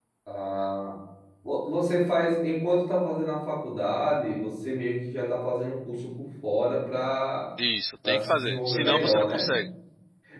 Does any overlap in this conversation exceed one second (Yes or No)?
Yes